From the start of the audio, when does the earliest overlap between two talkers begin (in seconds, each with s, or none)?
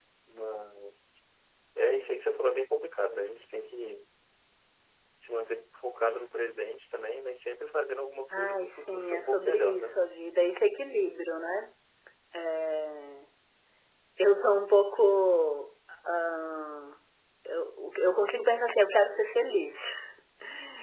8.3 s